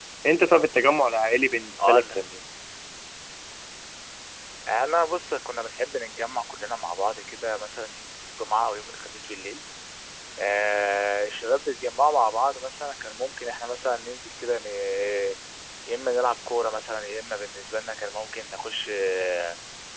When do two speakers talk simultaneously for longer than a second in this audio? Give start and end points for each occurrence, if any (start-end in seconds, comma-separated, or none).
none